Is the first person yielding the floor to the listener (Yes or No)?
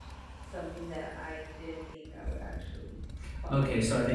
Yes